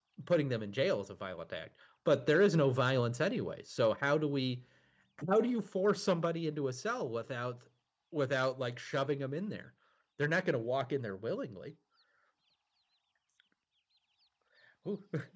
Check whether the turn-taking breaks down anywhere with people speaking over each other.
No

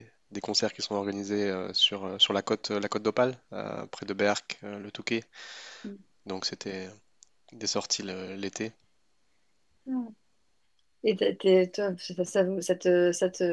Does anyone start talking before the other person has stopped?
No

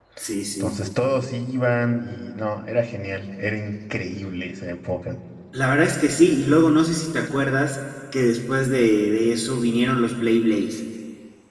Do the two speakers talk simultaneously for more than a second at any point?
No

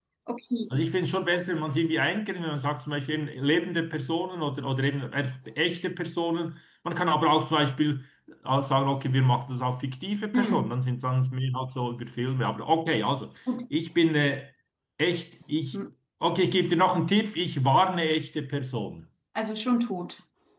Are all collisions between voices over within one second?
Yes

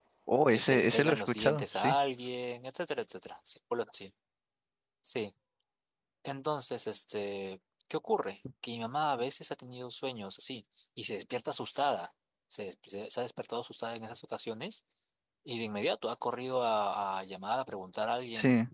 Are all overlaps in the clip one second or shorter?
No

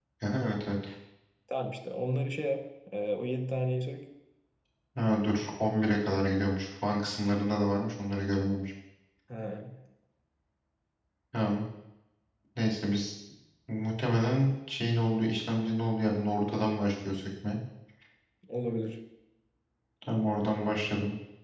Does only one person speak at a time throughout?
Yes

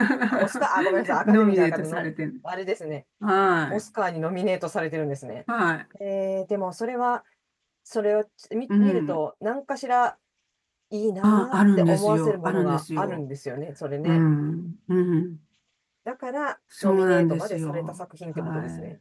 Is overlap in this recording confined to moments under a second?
No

